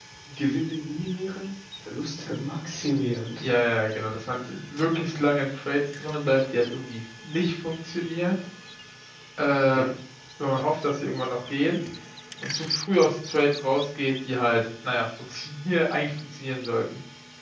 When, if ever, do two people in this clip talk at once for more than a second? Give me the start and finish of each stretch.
none

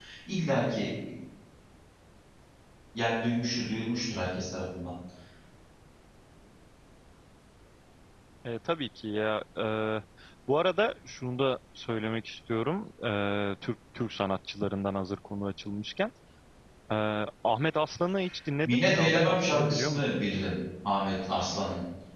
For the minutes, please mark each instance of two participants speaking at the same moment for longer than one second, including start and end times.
18.6-20.2

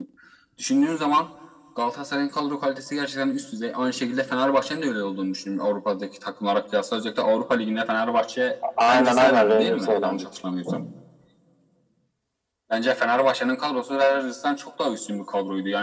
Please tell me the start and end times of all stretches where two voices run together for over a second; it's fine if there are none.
8.9-10.3

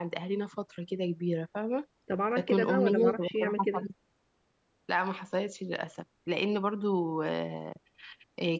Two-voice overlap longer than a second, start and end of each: 2.4-3.9

